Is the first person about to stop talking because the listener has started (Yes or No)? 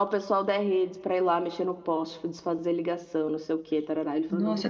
Yes